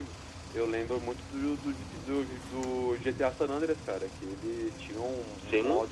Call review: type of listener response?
listening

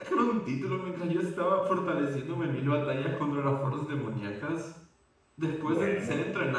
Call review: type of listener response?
listening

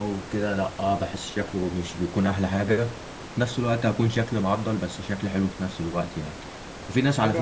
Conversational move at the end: listening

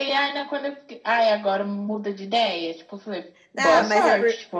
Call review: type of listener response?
taking over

